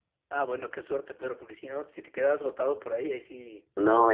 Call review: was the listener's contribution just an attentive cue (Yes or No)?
No